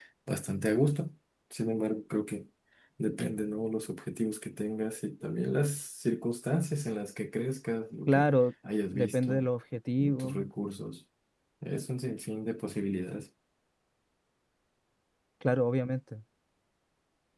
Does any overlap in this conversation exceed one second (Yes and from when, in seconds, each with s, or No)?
No